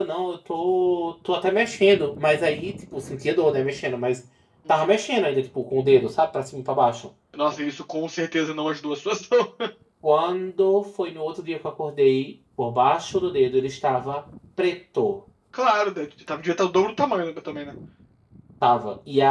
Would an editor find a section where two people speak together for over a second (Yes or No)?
No